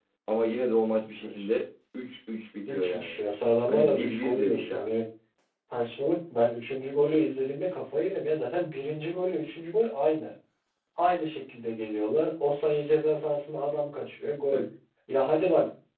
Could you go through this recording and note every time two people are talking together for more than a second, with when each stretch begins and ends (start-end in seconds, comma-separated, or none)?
3.7-4.9